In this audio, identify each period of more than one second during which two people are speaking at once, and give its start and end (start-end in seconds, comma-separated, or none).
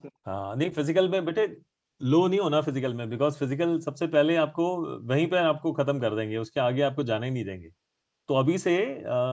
none